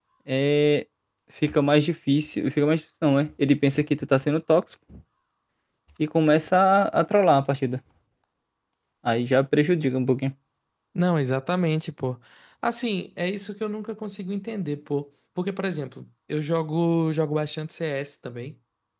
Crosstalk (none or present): none